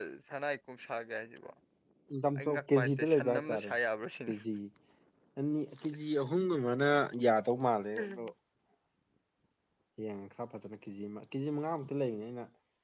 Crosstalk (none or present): present